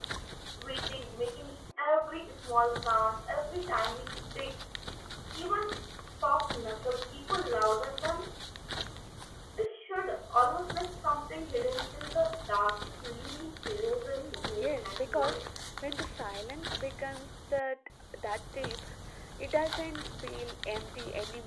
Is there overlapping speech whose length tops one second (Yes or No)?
Yes